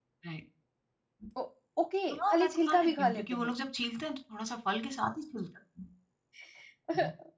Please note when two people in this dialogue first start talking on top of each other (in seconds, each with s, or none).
2.1 s